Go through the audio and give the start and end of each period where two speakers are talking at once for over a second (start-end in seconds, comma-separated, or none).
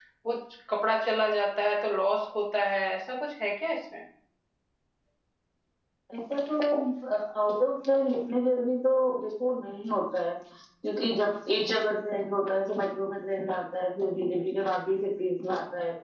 none